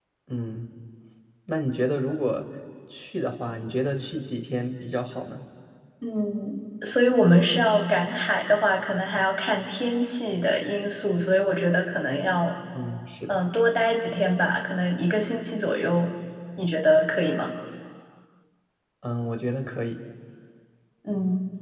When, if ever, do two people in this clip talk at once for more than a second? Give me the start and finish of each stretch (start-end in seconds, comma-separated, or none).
none